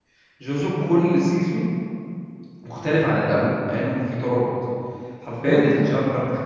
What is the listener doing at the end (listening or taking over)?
listening